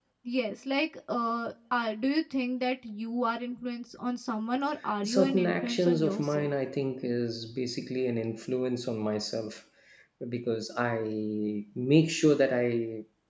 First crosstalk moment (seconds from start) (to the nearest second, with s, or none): 5 s